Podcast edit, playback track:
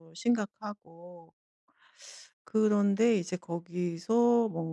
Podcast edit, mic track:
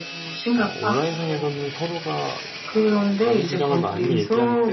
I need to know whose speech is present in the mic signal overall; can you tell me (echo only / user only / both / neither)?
both